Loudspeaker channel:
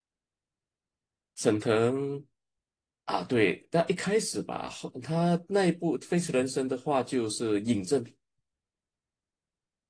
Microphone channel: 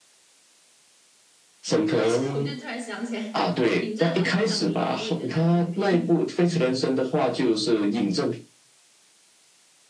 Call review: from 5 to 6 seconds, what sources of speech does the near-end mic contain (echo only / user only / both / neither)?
both